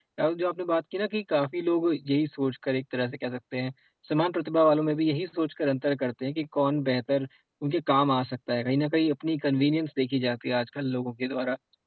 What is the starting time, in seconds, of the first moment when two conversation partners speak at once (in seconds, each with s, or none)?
none